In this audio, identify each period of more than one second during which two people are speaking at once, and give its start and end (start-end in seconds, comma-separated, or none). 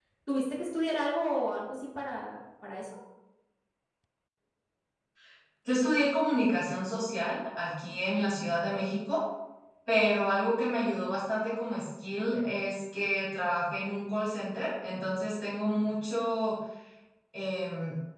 none